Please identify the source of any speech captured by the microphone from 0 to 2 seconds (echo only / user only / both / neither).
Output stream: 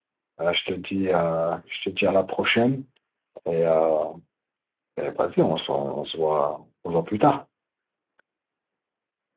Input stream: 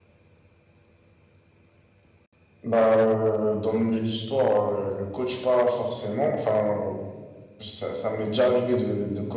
neither